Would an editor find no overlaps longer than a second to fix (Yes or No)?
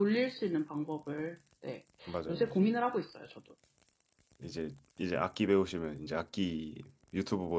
Yes